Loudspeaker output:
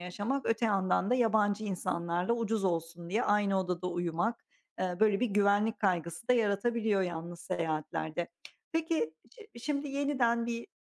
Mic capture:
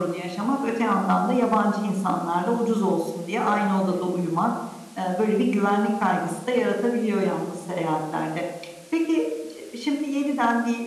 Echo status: present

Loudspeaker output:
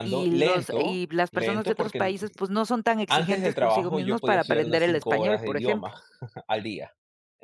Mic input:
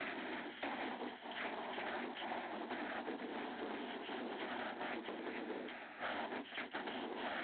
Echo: none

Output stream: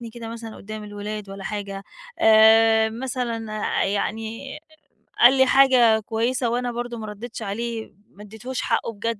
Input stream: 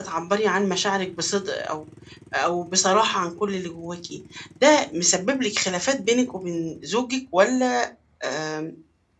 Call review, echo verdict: none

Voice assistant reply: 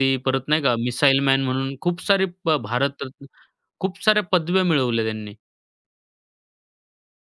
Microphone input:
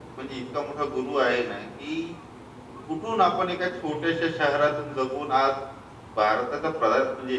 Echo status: none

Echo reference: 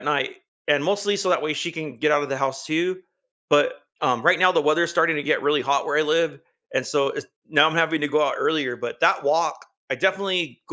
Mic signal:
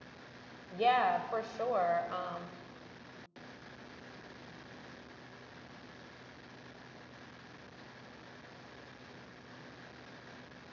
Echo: none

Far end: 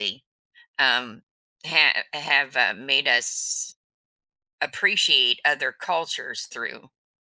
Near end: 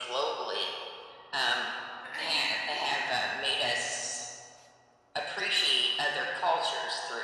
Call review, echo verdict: present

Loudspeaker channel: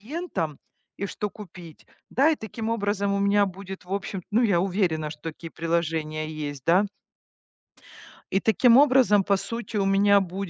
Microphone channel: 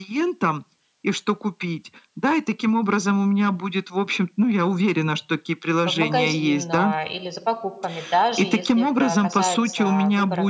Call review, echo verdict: present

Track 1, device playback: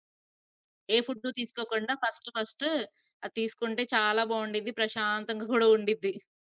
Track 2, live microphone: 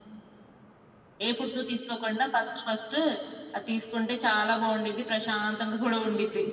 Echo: present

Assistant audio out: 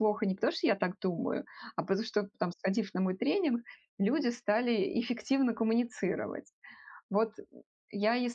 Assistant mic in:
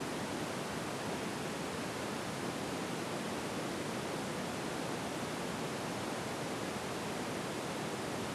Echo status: none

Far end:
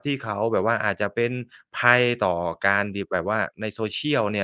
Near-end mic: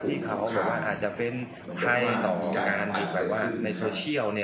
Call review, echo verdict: present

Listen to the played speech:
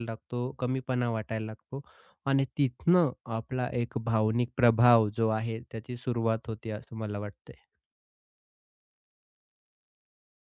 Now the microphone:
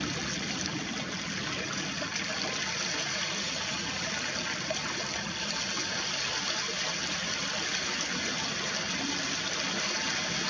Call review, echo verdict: none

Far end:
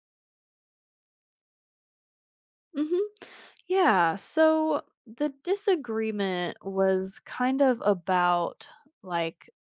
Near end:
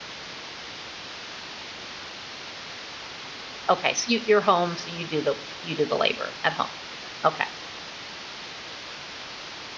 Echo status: none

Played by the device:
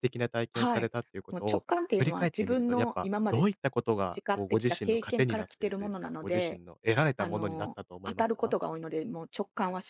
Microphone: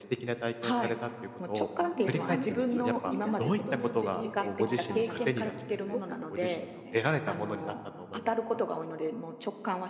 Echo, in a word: present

